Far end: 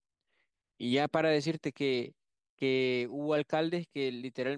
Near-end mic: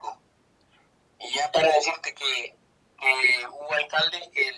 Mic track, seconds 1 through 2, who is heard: echo only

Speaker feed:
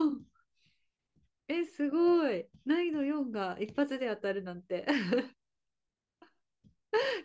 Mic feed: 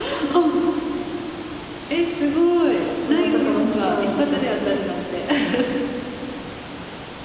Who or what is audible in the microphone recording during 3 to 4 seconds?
both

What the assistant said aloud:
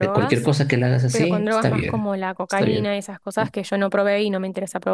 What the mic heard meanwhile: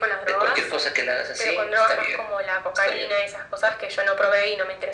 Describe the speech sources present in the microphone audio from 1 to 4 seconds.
echo only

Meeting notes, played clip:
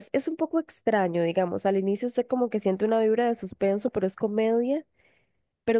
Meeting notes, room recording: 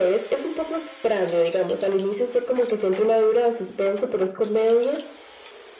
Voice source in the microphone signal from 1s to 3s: echo only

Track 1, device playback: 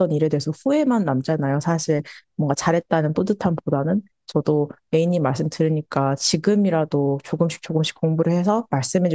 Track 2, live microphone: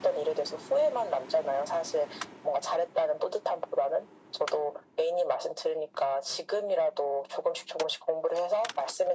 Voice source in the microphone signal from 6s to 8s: echo only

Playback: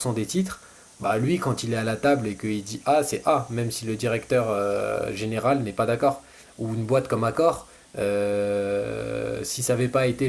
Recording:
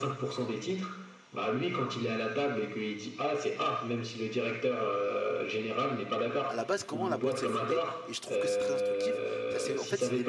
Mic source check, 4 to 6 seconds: echo only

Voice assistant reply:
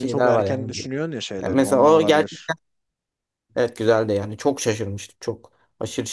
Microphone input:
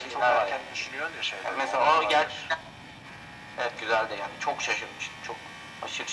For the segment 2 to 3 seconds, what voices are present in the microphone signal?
echo only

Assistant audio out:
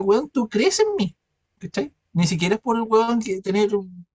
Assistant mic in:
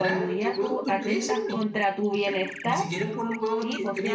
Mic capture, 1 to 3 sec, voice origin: both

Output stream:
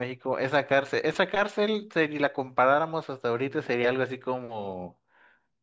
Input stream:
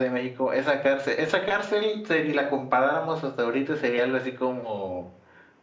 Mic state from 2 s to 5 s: echo only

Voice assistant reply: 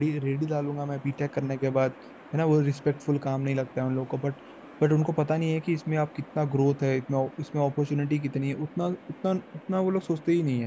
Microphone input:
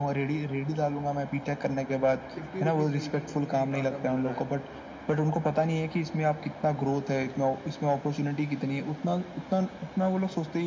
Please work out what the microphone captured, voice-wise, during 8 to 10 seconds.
echo only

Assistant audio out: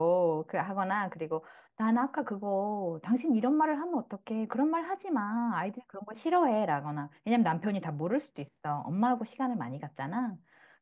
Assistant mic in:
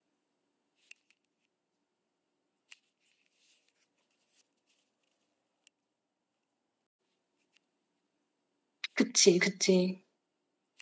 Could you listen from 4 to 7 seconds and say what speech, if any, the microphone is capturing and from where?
neither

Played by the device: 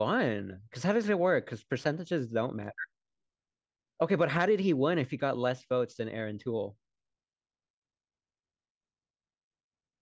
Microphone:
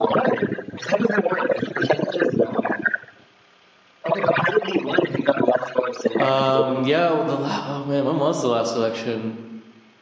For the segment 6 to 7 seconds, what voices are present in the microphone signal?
both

